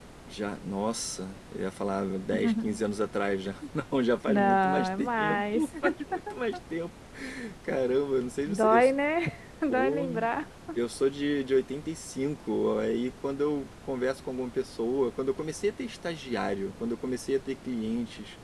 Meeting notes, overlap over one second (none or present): present